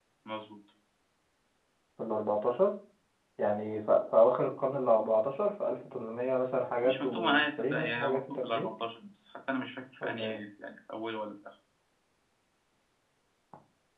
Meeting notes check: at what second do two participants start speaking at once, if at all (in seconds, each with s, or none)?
6.8 s